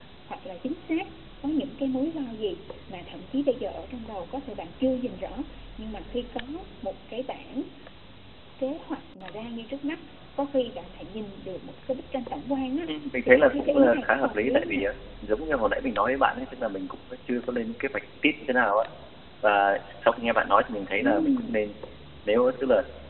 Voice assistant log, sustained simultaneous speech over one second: present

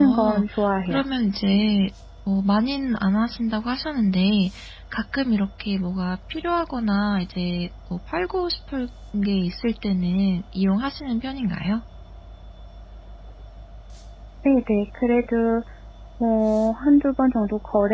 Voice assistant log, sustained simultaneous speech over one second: none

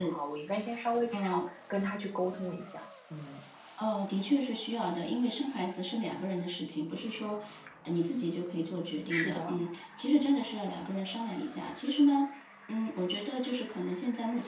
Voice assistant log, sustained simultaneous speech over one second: none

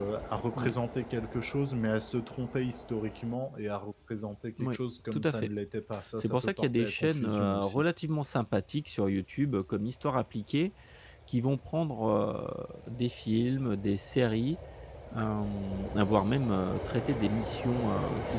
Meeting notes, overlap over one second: present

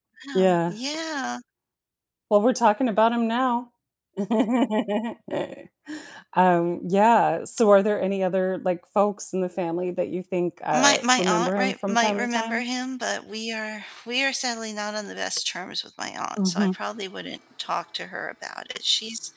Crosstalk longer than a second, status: present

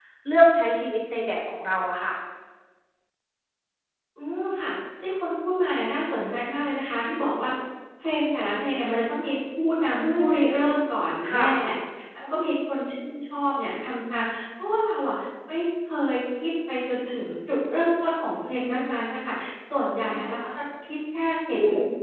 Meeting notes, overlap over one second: none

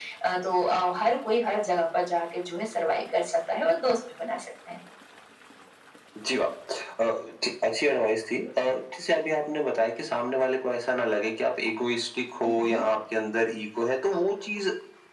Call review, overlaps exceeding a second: none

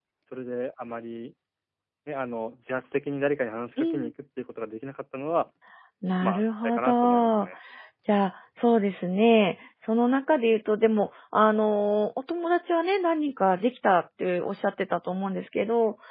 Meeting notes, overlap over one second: present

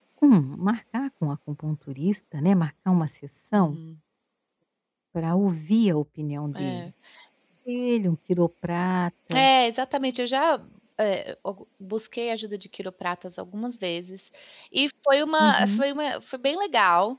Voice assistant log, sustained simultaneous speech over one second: none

